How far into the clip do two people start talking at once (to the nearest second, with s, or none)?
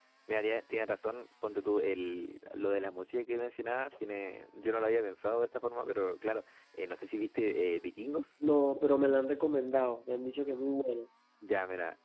none